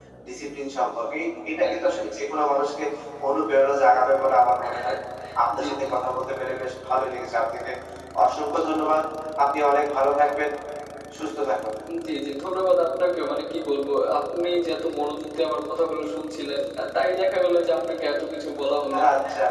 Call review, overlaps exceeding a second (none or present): none